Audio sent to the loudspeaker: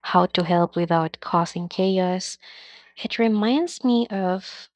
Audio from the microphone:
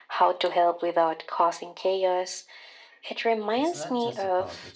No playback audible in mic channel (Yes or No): No